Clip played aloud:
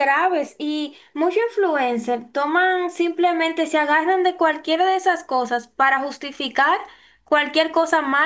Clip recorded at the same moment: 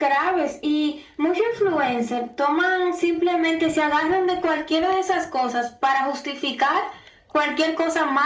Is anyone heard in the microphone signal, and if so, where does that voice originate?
echo only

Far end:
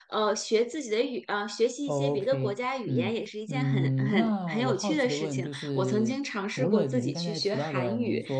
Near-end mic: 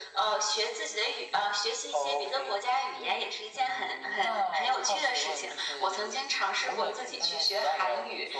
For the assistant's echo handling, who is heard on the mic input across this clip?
echo only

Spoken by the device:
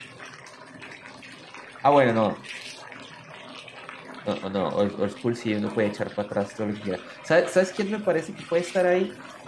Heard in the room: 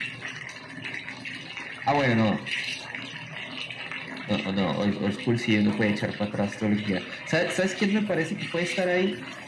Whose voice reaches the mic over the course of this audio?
echo only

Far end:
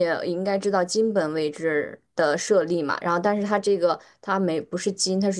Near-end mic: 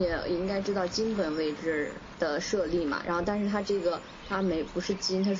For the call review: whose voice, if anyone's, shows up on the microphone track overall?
echo only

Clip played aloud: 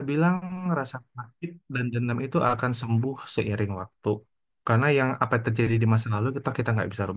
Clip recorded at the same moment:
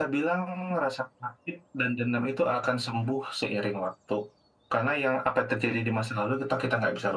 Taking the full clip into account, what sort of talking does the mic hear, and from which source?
echo only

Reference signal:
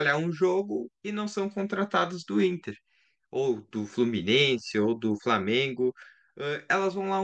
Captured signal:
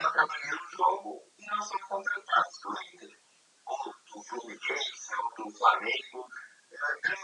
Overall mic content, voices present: echo only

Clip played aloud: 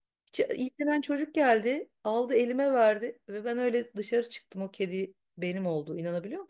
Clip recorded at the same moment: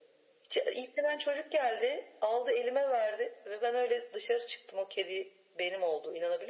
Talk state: echo only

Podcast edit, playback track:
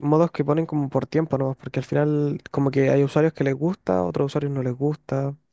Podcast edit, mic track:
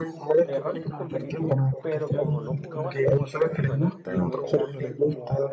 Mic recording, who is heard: both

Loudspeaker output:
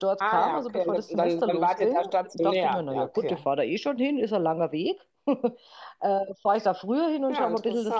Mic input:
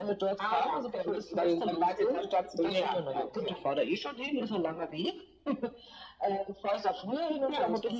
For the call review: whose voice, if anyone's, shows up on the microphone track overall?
echo only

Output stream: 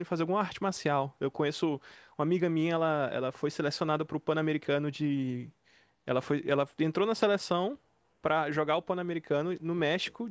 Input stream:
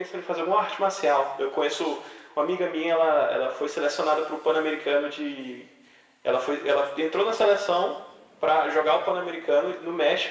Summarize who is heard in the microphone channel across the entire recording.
echo only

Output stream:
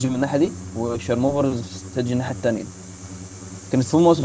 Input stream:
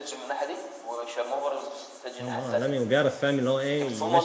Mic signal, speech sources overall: both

